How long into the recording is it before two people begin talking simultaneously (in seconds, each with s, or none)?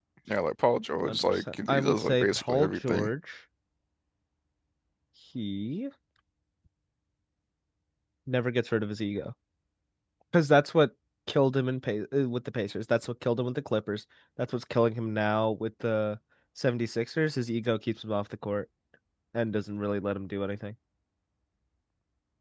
1.0 s